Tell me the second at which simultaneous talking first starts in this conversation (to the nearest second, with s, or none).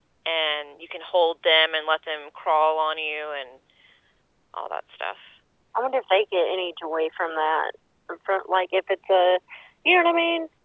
none